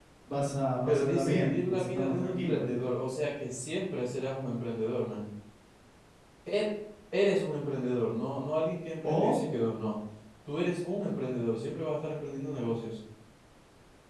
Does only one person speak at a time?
No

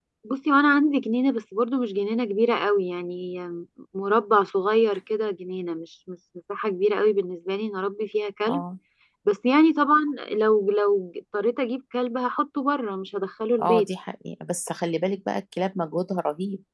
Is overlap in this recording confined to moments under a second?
Yes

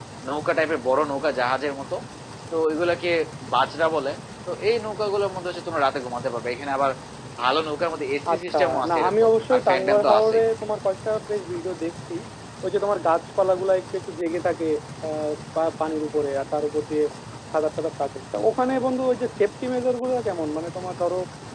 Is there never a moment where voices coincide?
No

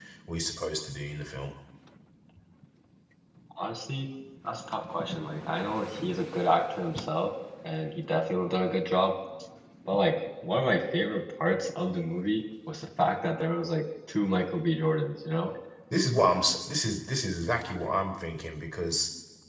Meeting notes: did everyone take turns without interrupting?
Yes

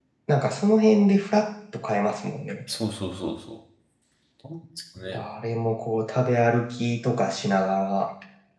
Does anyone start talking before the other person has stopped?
No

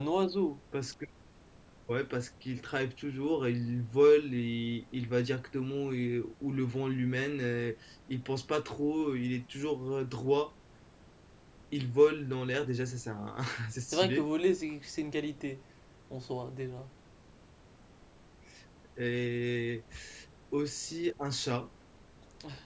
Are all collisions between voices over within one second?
Yes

